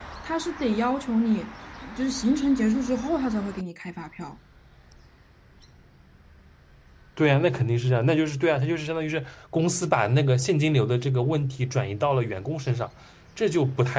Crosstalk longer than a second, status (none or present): none